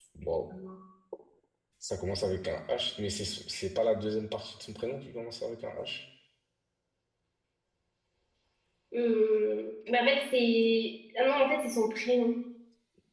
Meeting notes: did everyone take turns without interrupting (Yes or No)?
Yes